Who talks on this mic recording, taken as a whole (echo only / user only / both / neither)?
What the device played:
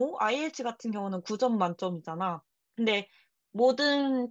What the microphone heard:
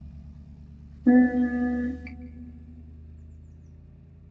user only